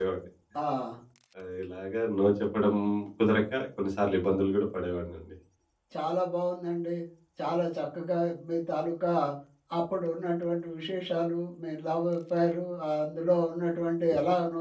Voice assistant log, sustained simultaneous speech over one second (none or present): none